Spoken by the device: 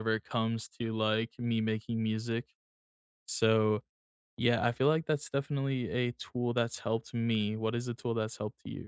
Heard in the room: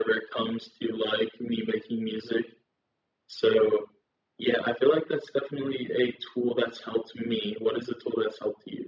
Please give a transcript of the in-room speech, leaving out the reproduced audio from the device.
none

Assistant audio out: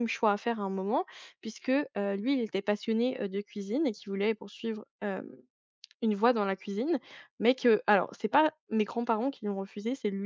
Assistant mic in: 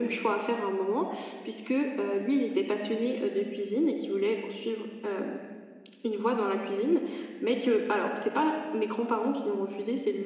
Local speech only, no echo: none

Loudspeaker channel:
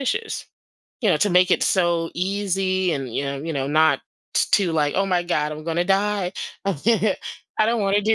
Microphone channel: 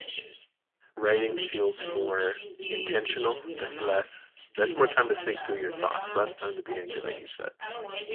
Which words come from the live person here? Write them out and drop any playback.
writing feels more intentional. There's less, there's more time to think through your thoughts, less time to be angry, like you said.

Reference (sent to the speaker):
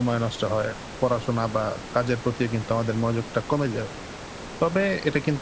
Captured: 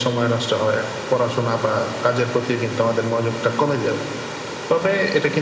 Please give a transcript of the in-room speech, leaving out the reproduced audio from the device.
none

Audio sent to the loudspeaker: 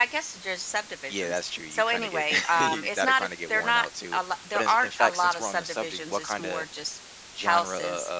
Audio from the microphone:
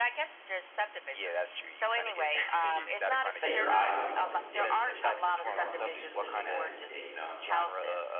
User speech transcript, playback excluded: set your eyes on something different than you're normally used to looking at every day, you know?

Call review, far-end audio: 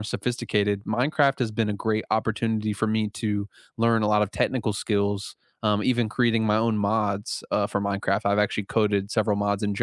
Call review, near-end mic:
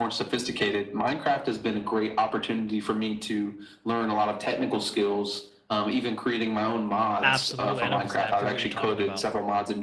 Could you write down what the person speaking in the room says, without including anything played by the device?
Absolutely, I know exactly what you're talking about.

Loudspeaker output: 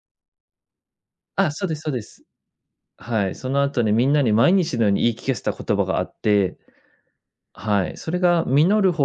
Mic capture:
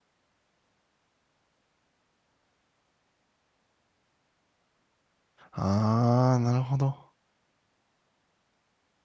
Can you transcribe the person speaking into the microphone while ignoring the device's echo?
ああ、なるほど。

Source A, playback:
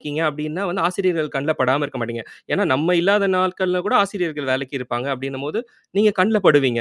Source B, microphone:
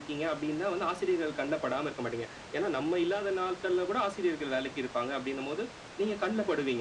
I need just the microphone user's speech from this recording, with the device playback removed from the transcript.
none

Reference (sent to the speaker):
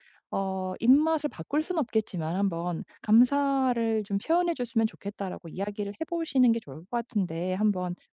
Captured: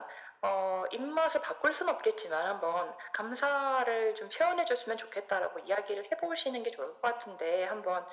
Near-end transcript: none

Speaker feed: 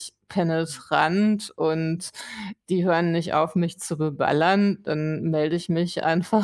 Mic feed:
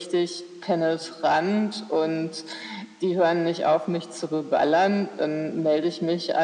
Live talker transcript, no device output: none

